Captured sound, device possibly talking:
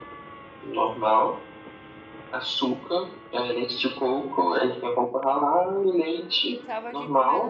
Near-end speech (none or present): present